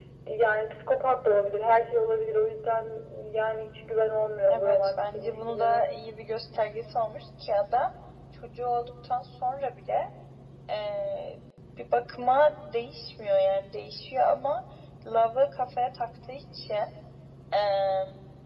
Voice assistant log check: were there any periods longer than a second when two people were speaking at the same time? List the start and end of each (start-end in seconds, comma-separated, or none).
4.5-5.9